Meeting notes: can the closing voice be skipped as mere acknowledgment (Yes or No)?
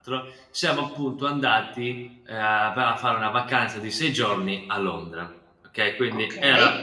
Yes